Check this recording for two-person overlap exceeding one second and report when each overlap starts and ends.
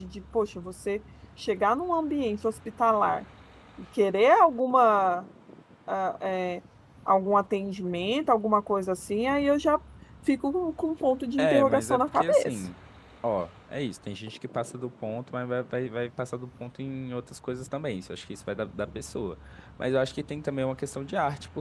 11.4-12.6

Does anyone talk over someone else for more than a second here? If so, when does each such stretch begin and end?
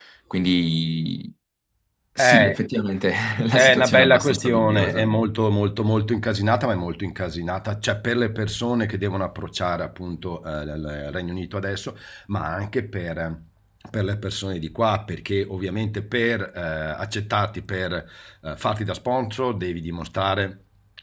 3.6-5.1

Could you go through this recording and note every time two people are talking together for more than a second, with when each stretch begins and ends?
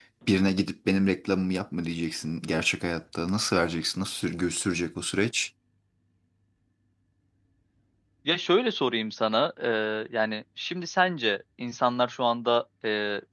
none

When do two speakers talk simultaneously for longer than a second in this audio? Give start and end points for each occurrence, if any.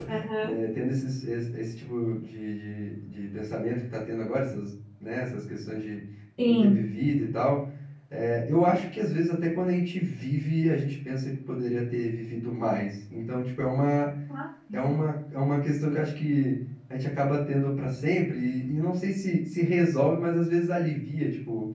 none

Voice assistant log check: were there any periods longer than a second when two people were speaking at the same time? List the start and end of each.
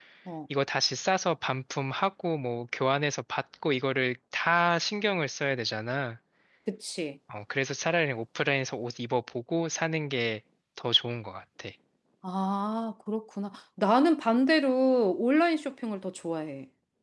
none

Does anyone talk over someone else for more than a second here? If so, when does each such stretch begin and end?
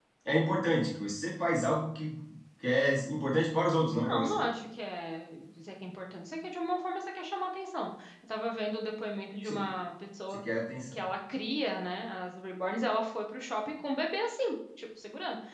none

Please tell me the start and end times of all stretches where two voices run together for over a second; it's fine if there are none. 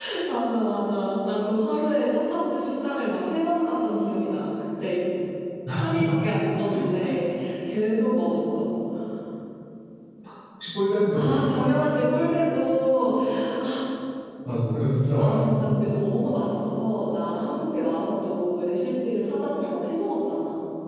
none

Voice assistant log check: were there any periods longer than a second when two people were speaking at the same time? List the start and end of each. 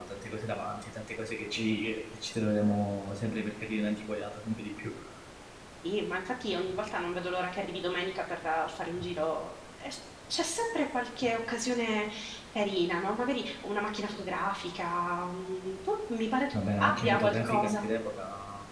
16.5-17.9

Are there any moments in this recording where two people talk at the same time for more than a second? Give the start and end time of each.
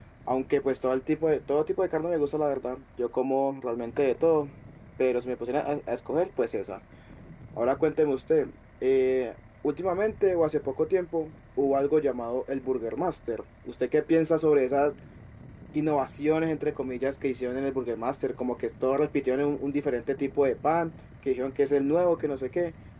none

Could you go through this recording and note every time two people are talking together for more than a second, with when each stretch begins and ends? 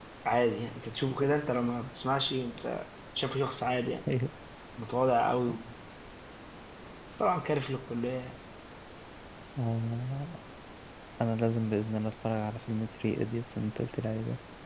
none

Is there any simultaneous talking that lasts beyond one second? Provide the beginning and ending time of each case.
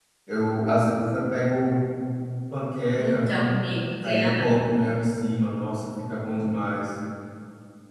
none

